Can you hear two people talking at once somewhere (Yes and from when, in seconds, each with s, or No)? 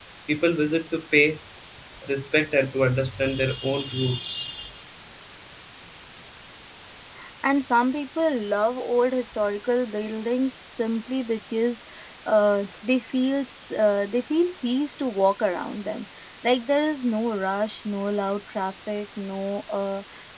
No